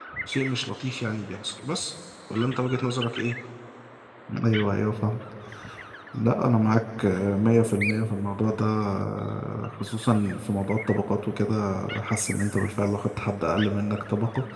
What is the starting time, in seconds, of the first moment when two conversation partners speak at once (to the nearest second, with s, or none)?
none